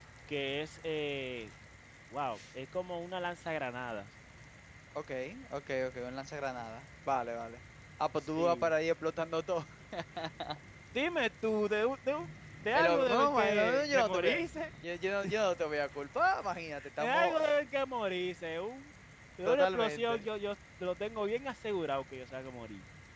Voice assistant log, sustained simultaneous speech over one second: present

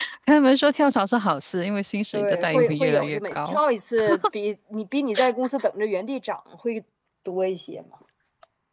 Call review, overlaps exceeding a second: present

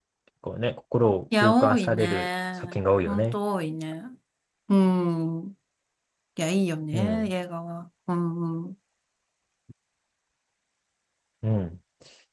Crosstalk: present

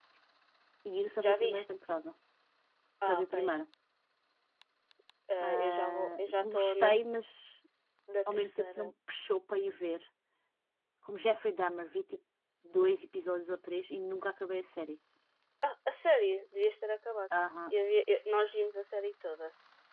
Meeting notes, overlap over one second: present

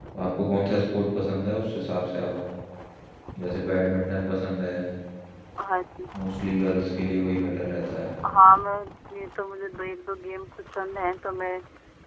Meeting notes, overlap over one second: none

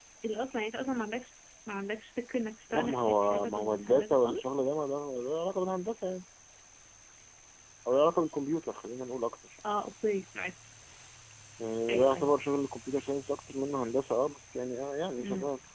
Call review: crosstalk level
present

